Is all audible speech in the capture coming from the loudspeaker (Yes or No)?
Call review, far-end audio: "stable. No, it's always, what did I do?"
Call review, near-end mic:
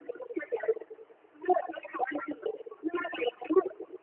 Yes